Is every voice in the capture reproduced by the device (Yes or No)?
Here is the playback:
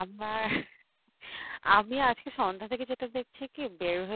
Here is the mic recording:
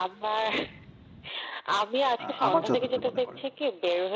No